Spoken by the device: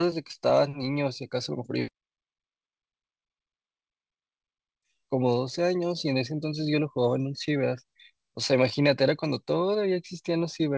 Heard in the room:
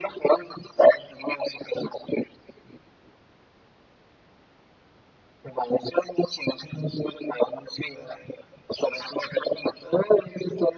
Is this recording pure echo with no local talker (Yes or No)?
Yes